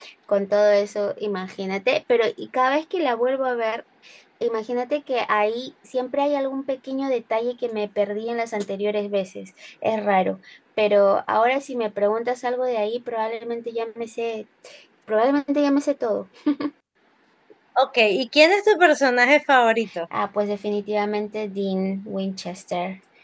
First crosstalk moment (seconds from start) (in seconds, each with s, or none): none